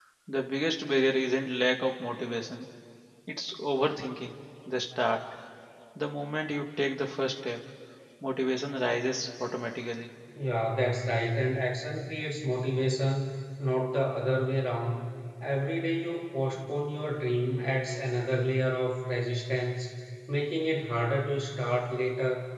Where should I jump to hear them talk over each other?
none

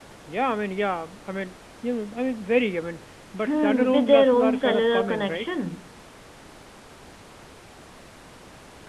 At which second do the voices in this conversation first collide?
3.4 s

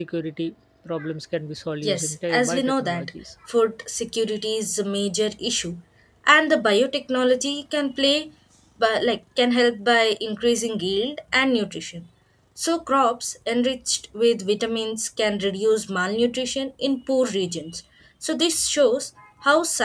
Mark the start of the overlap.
1.8 s

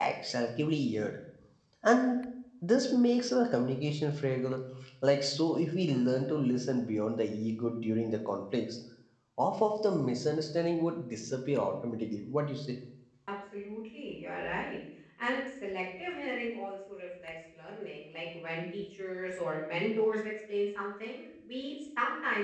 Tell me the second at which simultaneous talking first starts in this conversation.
none

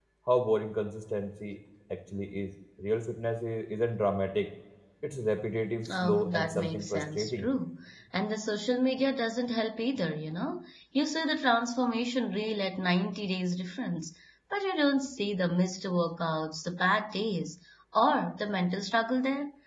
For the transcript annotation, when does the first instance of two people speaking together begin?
5.9 s

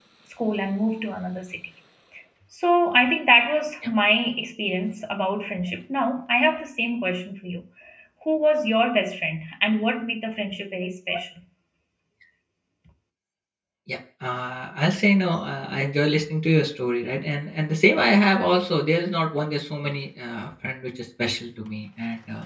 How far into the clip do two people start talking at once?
none

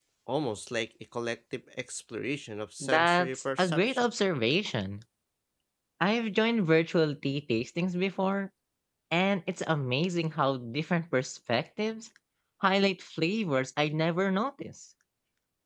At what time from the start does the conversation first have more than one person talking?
2.8 s

